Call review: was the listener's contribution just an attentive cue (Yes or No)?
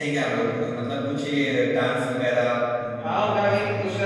No